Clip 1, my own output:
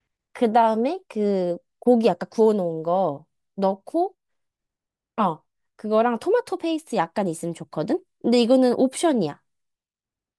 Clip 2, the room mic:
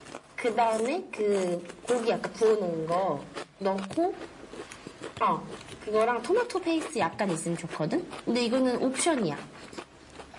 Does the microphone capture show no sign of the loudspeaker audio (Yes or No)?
No